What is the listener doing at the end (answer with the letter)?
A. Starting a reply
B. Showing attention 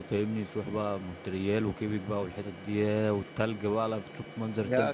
A